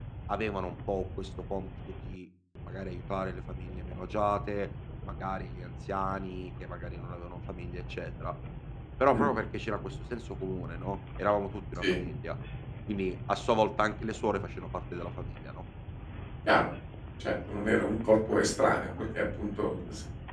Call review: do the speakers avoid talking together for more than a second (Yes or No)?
Yes